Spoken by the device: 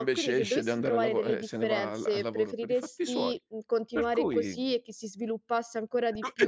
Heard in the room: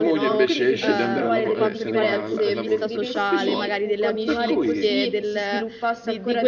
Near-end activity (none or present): present